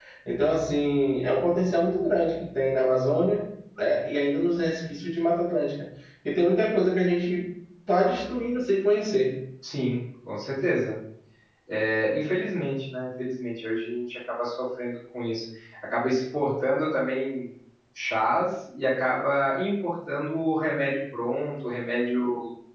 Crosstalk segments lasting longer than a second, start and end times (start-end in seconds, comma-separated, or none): none